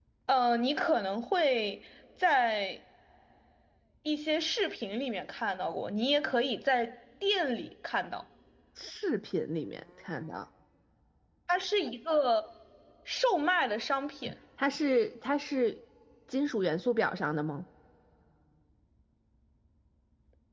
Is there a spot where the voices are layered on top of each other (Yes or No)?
No